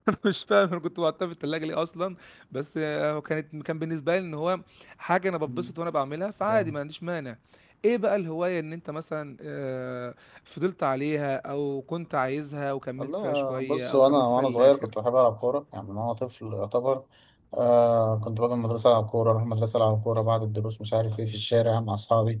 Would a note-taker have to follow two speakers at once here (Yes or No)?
Yes